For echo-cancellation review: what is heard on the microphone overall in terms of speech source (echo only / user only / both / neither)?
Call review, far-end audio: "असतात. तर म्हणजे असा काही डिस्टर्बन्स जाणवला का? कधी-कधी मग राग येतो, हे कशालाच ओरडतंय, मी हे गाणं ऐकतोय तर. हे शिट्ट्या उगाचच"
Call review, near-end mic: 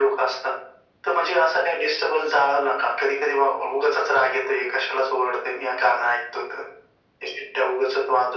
echo only